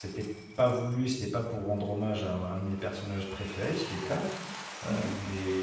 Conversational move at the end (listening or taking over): listening